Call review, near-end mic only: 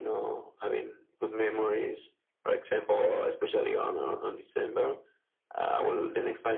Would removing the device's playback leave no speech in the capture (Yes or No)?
Yes